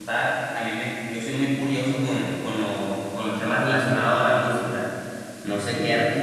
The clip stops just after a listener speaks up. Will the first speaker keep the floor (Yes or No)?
Yes